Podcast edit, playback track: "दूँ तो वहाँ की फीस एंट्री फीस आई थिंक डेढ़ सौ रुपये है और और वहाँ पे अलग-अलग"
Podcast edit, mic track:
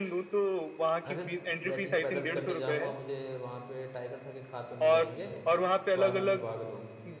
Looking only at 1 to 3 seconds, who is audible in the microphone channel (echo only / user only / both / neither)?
both